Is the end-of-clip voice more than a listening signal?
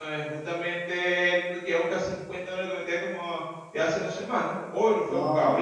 Yes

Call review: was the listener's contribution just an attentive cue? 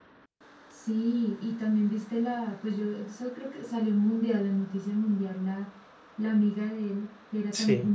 Yes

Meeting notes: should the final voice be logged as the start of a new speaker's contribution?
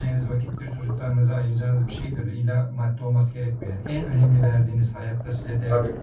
No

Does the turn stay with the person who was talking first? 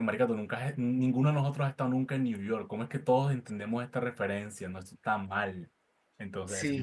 No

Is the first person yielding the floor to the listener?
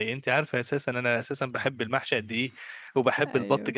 No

